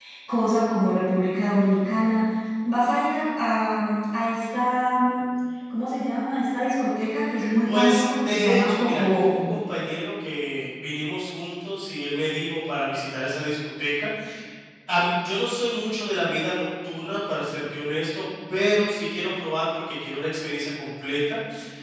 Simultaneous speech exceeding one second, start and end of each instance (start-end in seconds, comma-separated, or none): 7.6-9.4